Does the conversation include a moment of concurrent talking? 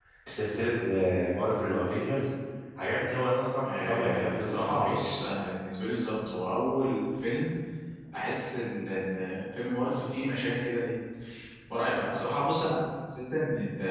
Yes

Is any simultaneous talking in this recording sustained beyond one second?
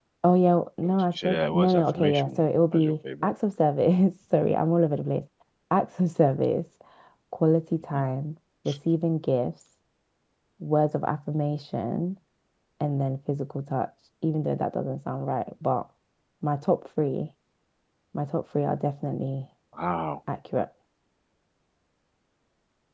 Yes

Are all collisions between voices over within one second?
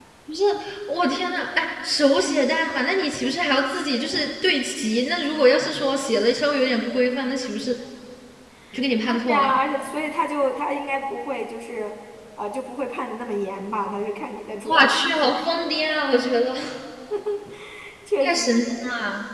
Yes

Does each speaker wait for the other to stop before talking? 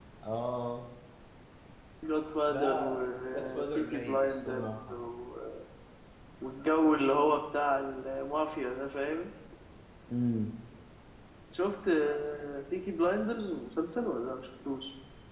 No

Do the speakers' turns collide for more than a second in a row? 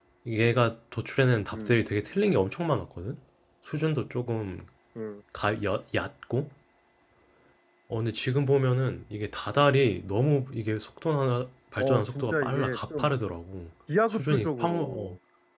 Yes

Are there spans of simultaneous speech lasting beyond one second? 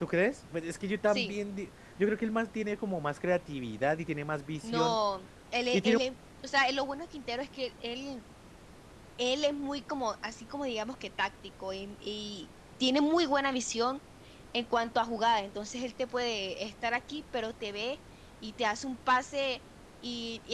No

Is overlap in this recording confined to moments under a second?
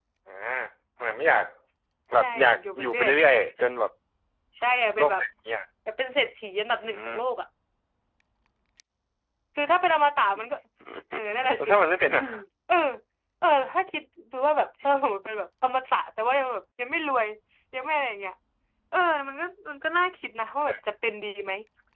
No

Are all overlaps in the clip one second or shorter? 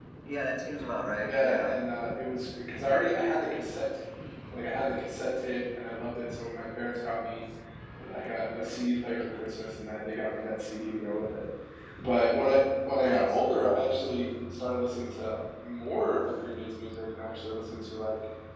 Yes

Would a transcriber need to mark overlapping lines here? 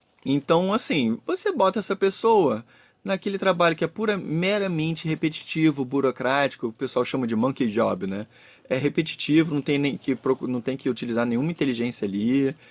No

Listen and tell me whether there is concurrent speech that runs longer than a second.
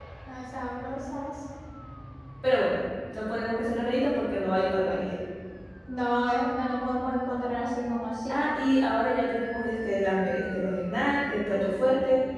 No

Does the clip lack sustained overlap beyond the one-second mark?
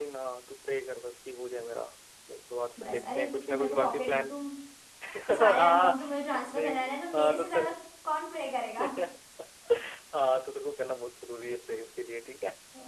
No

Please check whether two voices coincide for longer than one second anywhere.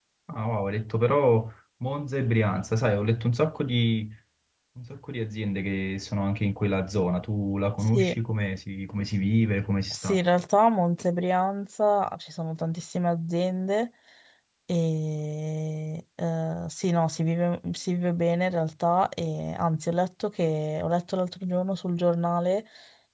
No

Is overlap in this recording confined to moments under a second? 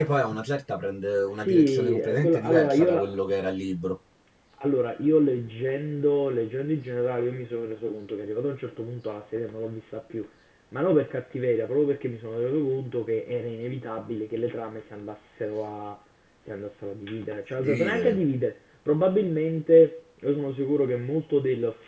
No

